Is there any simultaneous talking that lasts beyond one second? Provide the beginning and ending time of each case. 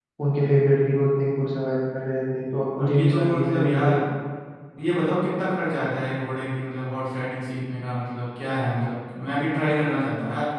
2.8-4.0

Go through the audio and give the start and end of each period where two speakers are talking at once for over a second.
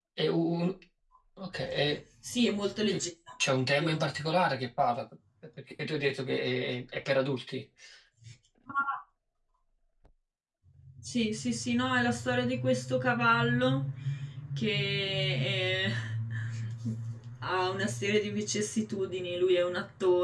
none

